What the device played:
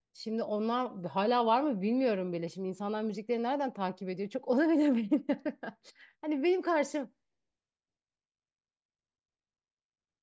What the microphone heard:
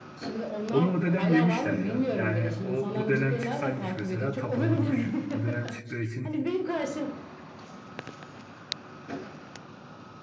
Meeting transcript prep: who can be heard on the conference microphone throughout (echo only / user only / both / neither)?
both